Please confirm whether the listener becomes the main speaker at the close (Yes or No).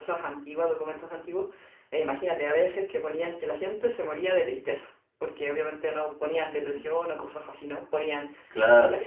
No